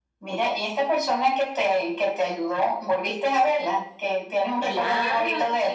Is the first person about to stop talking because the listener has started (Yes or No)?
Yes